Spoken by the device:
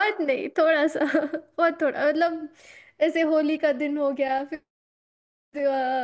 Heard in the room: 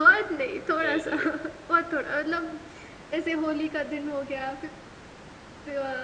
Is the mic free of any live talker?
No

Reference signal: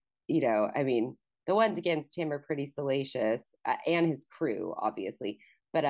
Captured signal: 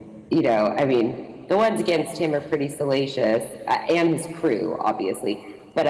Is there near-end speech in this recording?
No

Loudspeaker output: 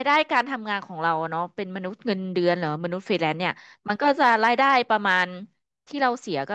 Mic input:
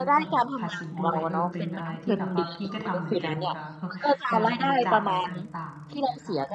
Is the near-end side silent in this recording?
No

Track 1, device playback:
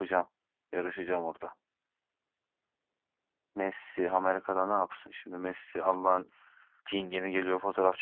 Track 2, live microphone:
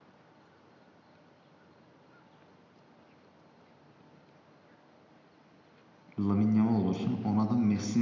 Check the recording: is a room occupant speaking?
Yes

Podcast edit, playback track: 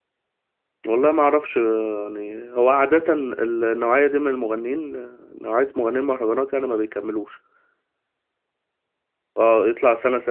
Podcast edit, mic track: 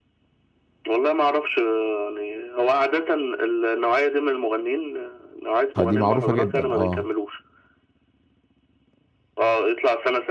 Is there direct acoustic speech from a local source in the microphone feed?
Yes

